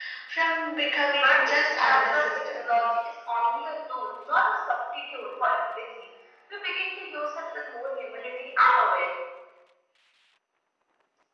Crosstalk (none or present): present